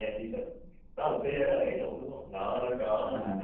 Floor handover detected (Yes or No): No